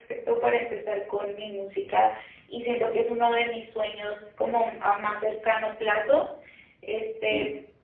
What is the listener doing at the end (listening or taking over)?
listening